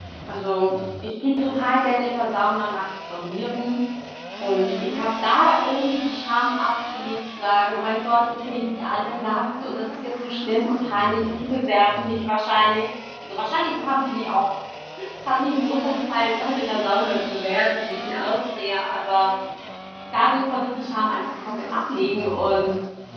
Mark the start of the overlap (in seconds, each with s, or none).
none